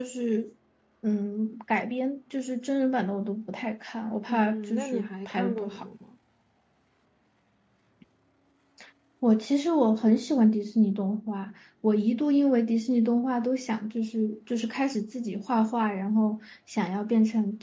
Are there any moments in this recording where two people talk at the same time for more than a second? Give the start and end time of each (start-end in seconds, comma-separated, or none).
4.3-5.7